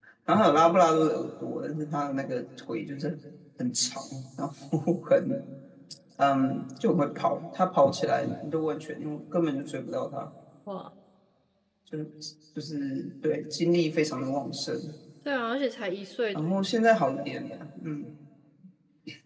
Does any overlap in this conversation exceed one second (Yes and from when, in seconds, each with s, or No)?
No